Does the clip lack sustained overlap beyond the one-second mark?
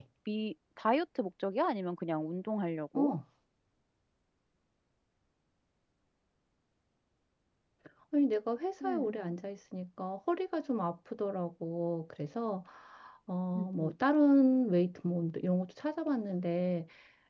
Yes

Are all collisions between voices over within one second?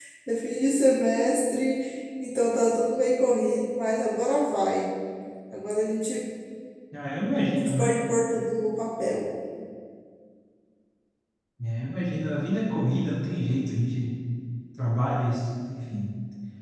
Yes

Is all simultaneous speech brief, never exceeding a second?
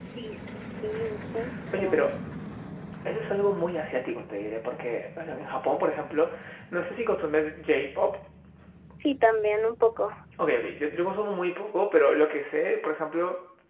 Yes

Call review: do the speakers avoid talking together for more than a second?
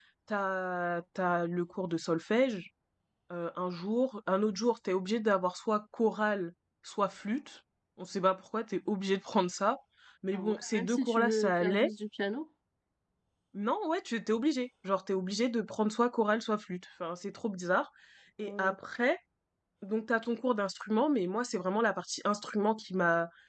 No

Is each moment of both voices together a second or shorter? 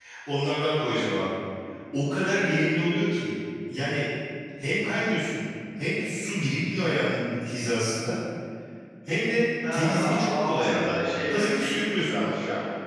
No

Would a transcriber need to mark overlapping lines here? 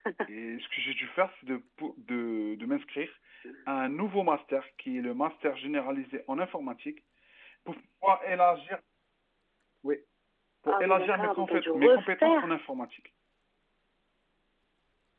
Yes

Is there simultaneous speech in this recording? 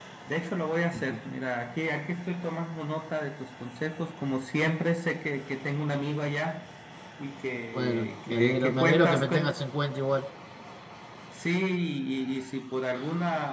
Yes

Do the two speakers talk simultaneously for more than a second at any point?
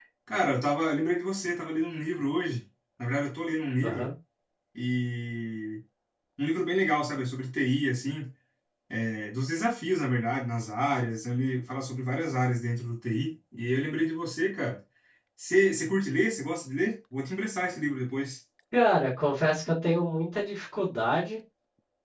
No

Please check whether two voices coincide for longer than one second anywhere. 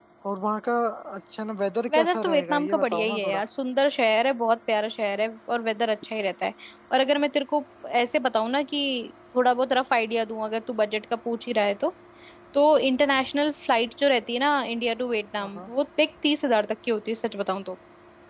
Yes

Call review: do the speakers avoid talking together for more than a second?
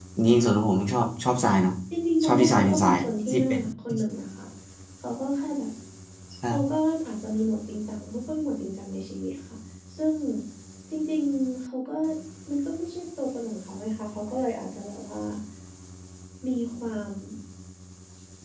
No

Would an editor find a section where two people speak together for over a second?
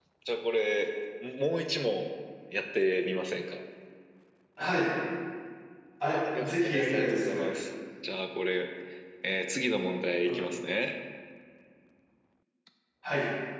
Yes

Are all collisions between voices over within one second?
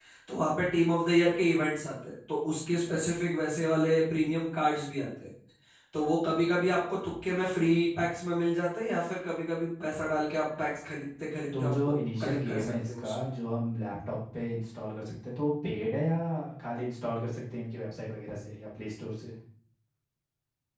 No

